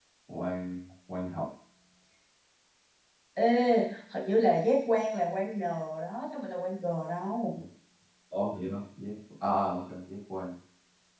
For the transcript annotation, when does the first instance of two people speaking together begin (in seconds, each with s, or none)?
none